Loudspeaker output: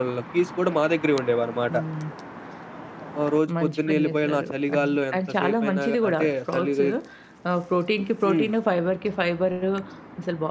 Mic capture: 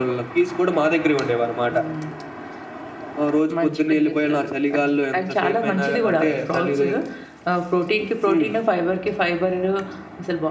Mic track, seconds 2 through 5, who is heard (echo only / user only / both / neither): echo only